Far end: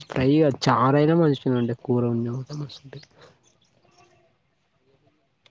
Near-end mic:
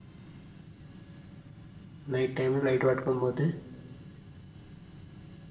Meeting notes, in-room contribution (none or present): present